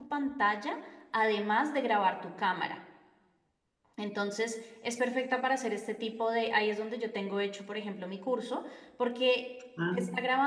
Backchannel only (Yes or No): Yes